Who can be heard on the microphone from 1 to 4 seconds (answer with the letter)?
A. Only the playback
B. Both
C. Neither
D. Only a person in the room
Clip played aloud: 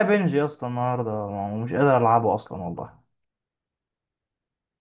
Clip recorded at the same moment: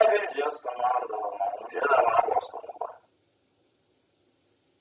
A